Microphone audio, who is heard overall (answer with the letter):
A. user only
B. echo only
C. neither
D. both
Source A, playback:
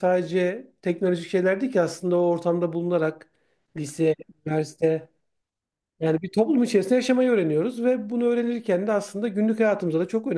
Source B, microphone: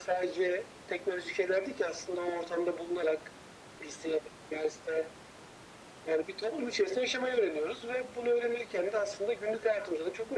B